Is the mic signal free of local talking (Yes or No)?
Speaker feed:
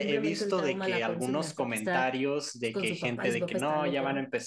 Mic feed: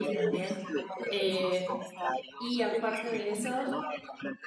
No